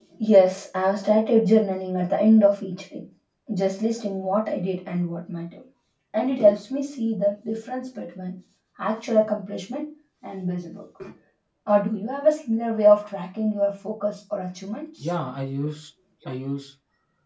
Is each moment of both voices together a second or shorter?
Yes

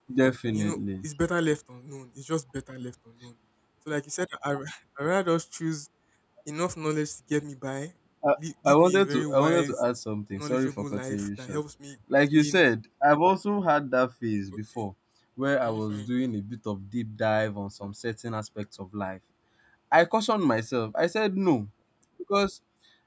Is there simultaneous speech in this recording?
Yes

